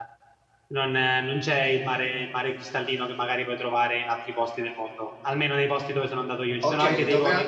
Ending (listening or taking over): taking over